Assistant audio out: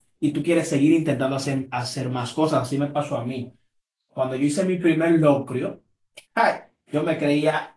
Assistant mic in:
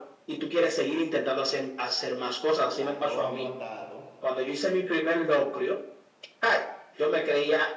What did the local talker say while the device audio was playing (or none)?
el arroz apatado.